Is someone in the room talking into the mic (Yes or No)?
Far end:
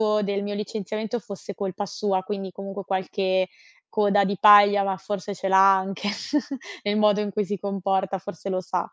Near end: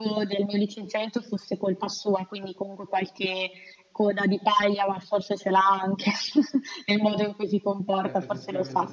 Yes